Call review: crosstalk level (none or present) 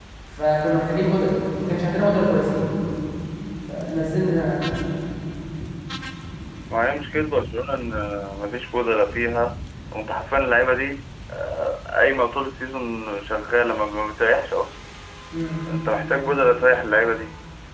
none